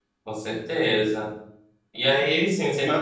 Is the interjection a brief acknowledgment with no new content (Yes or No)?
Yes